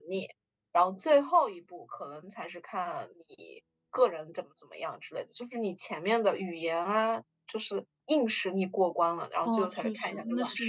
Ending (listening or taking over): taking over